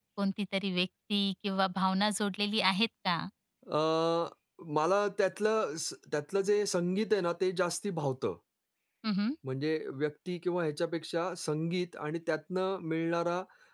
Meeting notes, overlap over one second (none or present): none